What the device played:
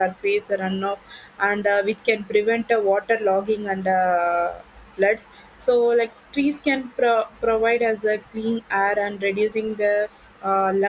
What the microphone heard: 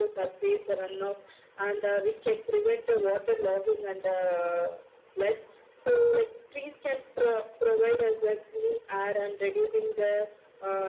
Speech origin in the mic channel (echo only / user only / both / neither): echo only